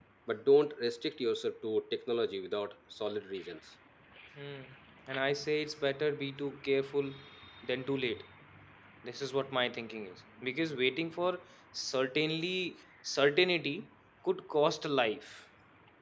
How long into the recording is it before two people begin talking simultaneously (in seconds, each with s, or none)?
none